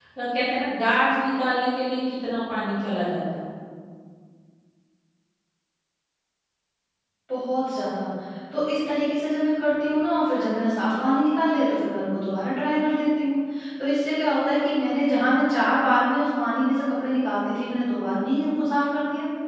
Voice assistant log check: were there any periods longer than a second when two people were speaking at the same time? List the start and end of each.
none

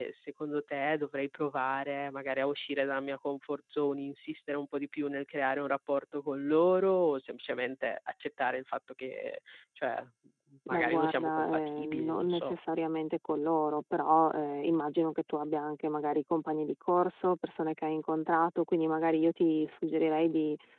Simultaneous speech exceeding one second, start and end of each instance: 10.7-12.5

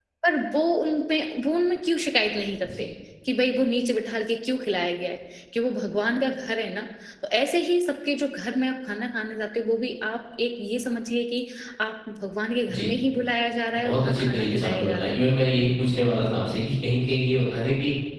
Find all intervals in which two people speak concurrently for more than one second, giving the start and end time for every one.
13.7-15.2

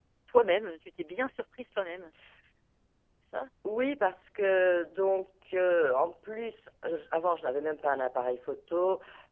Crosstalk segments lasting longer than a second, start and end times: none

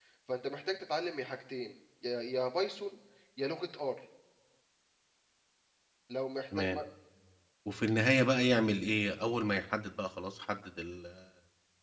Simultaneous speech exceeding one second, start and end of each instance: none

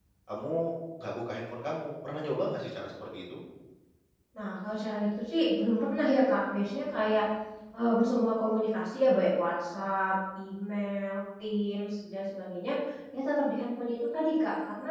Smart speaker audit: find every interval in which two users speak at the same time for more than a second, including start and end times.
none

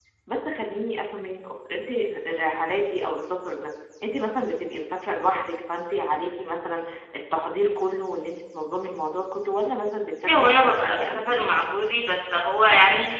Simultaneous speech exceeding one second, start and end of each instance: 10.2-11.4

